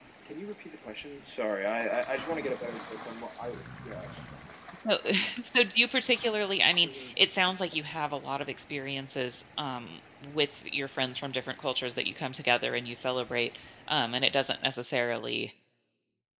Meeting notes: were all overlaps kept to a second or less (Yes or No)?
Yes